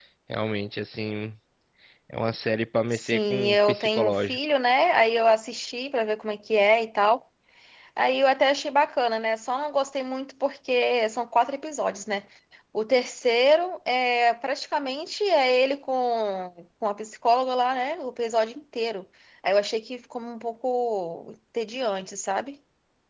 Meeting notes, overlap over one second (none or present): present